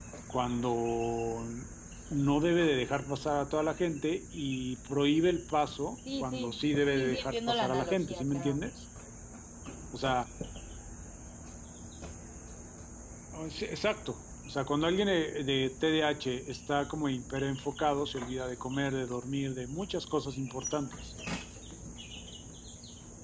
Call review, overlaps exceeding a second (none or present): present